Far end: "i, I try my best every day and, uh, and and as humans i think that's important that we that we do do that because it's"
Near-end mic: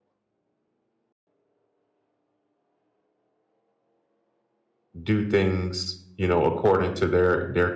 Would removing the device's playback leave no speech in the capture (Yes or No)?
No